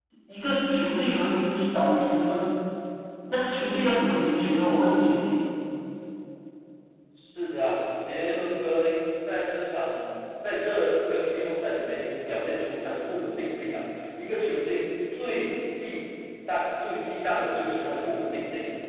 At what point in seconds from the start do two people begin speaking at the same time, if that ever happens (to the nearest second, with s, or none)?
none